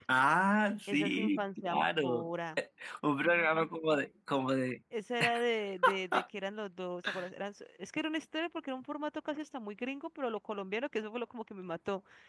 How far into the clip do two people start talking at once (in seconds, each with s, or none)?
0.9 s